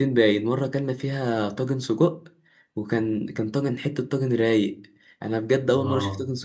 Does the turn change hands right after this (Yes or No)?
No